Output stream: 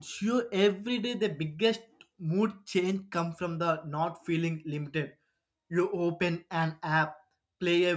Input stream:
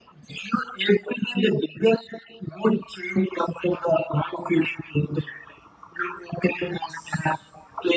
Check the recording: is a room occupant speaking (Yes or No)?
No